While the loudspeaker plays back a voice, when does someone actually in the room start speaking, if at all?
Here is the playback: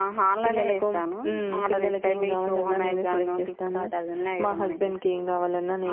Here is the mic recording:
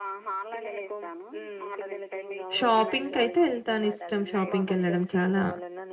2.6 s

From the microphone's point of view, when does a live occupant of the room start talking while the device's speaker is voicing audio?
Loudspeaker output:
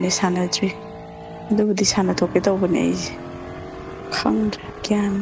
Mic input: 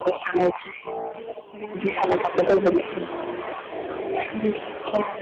none

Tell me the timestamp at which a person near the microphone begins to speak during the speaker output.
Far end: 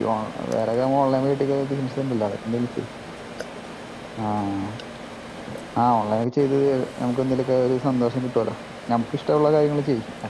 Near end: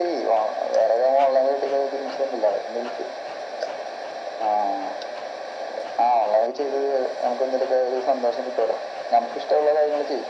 none

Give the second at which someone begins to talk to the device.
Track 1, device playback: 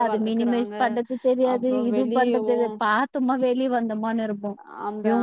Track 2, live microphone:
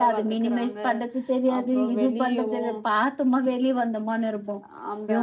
none

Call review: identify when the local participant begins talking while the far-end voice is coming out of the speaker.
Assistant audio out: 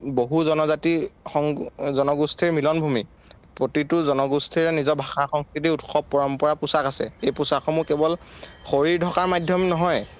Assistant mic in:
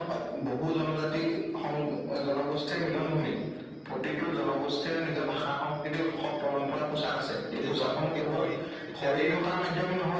7.6 s

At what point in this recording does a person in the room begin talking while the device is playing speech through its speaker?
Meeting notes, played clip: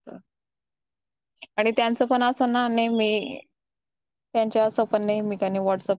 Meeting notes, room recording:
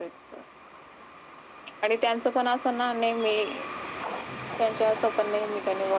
none

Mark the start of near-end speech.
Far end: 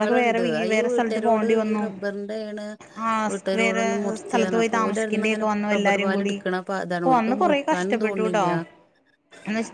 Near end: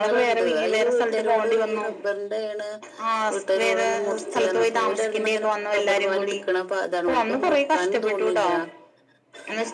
none

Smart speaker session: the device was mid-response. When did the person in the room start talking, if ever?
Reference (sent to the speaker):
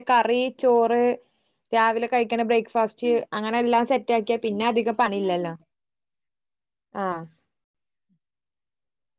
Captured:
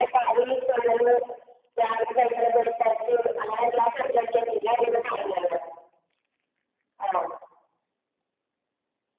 none

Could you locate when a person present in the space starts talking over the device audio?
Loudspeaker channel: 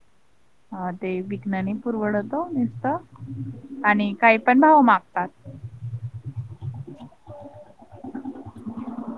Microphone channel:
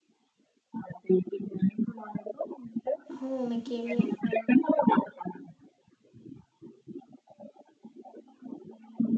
3.2 s

